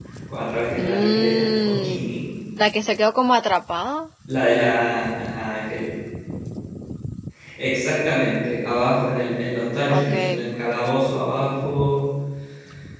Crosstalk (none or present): present